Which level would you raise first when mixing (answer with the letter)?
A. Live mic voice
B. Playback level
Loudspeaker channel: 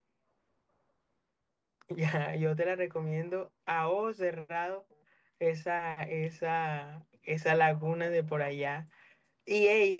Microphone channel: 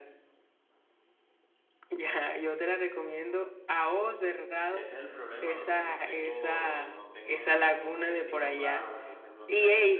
A